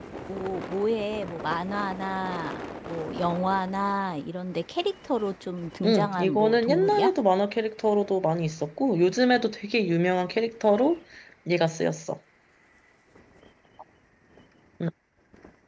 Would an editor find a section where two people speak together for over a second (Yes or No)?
Yes